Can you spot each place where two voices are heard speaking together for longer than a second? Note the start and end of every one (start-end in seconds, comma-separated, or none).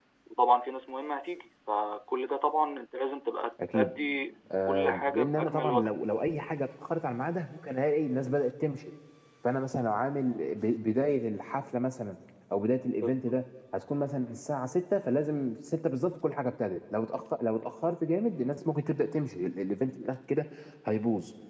4.7-5.9